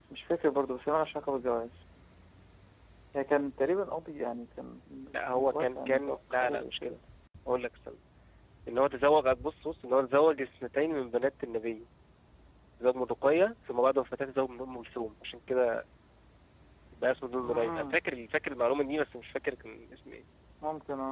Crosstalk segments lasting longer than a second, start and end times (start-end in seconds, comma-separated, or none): 5.3-7.0